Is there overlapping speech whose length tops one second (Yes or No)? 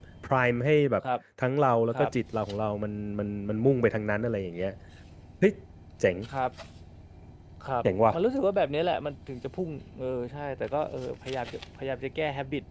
No